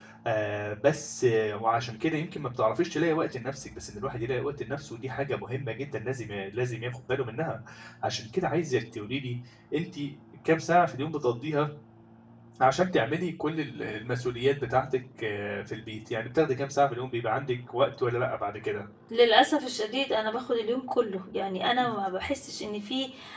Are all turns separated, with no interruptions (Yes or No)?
Yes